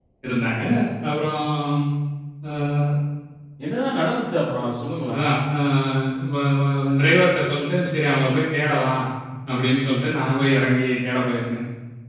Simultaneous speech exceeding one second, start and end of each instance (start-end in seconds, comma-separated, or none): none